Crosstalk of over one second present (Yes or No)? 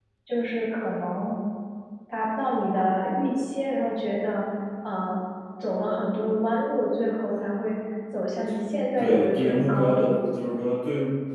Yes